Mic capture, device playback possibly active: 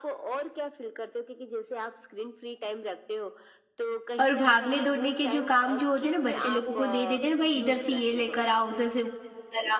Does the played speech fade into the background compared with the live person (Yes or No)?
Yes